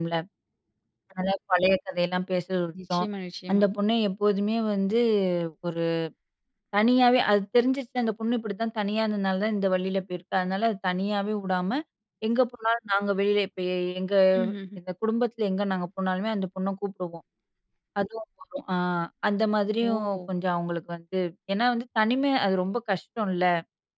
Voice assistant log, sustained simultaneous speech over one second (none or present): none